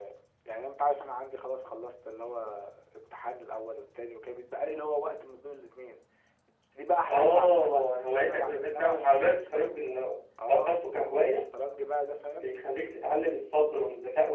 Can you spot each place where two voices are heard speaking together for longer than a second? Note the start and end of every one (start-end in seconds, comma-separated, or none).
7.1-9.4